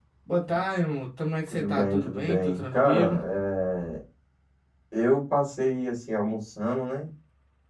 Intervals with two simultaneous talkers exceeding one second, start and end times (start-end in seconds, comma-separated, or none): 1.5-3.2